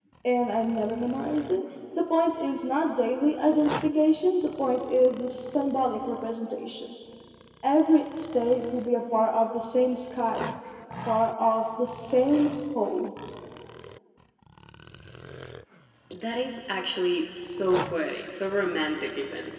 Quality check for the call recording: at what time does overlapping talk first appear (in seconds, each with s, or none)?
none